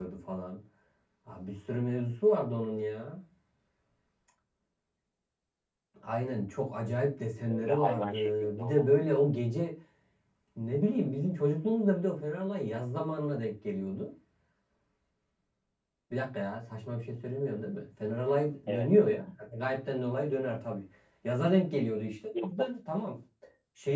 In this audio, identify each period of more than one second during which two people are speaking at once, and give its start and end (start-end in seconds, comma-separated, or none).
7.4-8.9